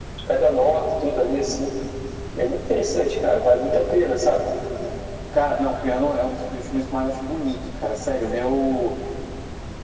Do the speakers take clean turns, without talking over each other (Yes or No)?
Yes